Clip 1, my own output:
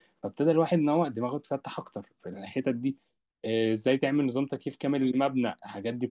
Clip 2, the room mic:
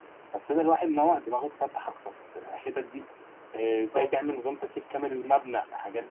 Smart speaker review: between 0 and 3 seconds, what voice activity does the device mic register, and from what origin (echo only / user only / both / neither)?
echo only